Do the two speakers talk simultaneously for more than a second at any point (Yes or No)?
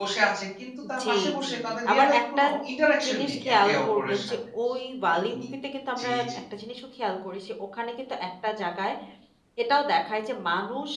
Yes